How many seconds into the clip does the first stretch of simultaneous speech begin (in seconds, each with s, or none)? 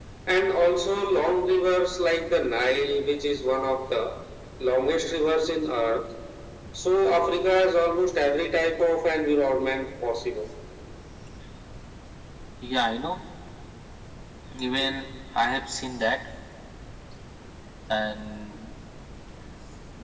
none